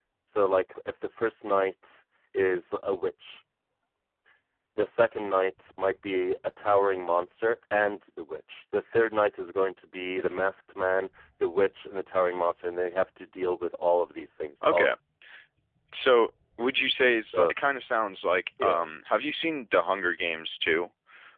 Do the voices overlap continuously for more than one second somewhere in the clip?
No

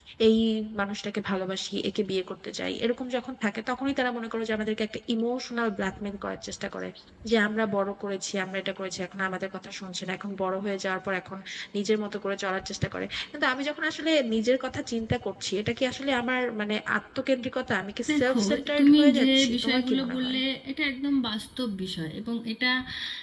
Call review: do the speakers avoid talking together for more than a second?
No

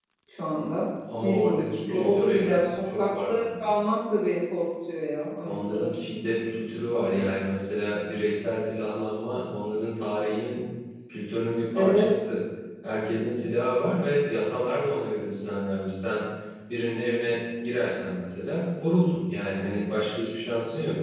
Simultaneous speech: Yes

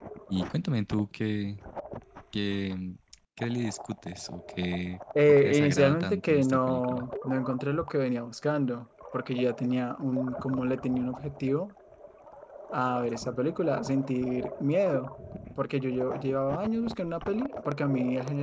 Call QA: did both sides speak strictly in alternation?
No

